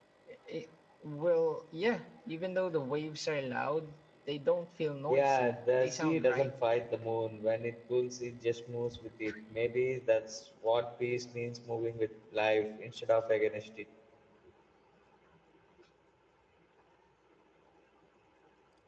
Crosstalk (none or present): present